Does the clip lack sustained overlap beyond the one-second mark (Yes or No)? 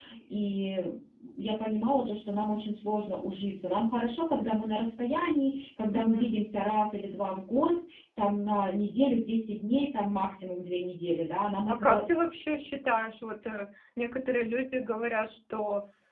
Yes